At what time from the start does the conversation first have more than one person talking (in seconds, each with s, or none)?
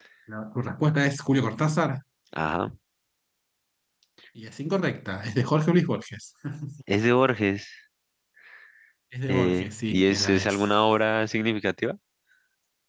9.3 s